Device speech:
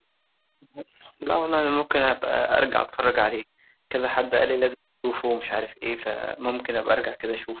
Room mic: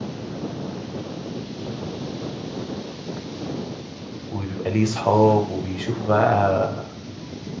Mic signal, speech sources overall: user only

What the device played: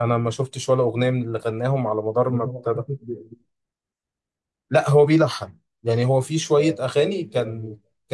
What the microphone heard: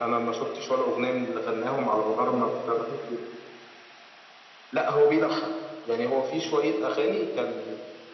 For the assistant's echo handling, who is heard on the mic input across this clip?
echo only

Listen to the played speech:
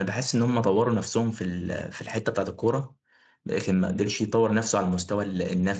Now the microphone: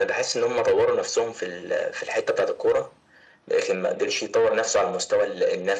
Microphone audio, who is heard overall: echo only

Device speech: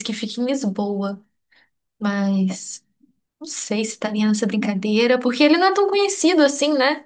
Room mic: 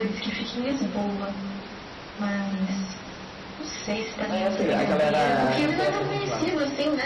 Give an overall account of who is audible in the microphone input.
both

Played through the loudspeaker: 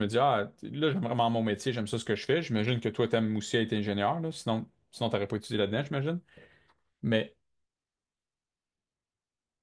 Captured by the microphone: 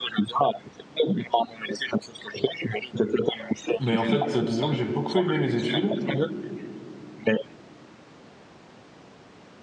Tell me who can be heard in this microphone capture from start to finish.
both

